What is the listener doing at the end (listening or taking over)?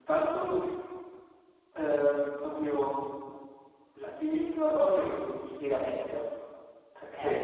listening